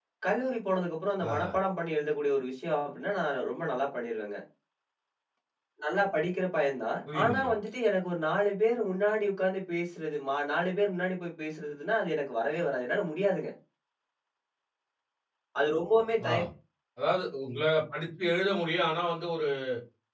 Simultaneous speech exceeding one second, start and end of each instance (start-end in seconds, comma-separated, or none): none